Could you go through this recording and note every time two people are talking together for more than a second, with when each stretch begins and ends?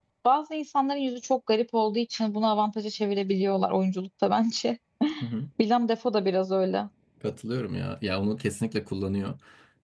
none

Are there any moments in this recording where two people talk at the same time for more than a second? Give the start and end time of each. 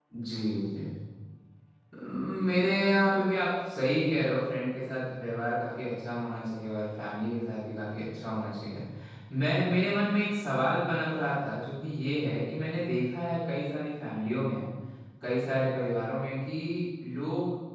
none

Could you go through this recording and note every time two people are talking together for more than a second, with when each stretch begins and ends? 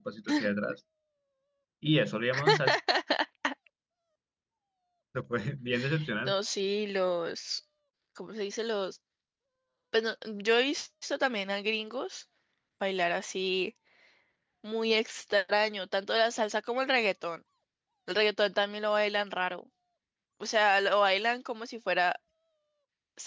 none

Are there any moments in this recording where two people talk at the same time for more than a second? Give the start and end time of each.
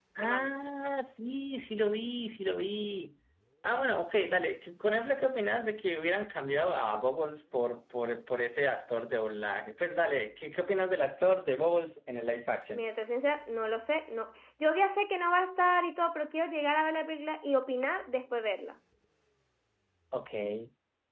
none

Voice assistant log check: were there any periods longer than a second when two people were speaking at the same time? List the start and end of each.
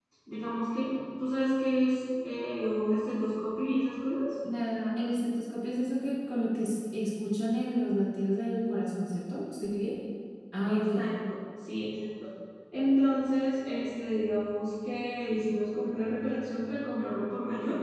none

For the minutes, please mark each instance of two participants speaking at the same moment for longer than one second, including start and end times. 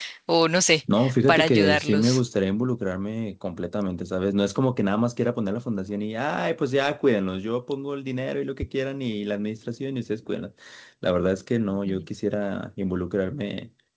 1.0-2.2

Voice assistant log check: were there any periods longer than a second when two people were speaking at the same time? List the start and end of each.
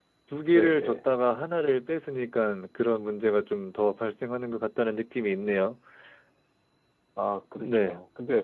none

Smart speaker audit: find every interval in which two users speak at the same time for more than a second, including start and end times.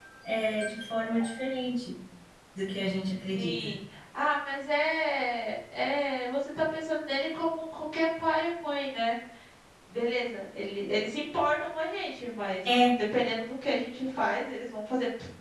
none

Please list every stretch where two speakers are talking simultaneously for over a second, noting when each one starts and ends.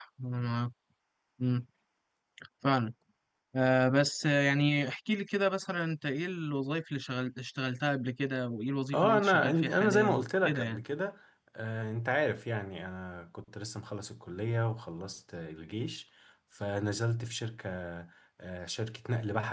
8.9-10.8

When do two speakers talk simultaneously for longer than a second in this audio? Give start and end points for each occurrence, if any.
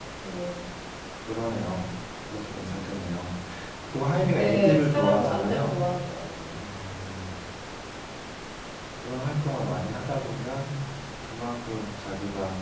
4.4-5.7

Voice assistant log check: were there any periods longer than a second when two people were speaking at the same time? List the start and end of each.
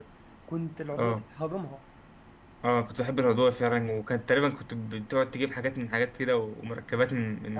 none

